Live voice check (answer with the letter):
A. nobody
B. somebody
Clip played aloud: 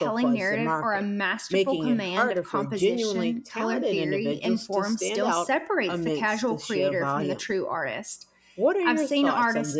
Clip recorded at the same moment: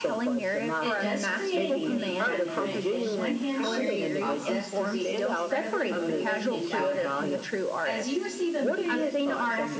B